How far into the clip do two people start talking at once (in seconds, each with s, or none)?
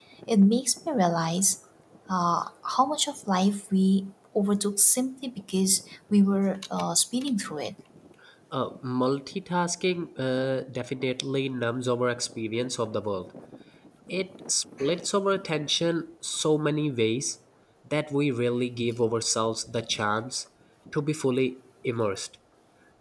none